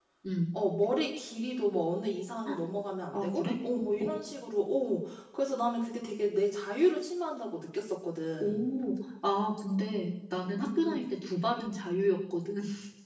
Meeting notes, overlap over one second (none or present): none